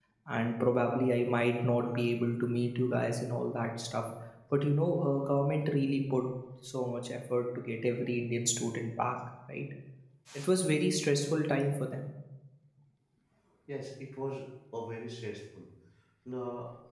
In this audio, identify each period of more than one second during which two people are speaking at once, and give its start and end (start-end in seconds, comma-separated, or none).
none